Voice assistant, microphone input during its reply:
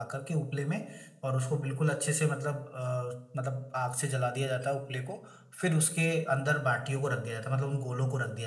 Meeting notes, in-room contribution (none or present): none